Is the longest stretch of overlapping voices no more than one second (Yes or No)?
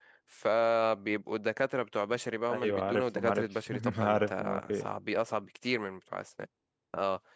No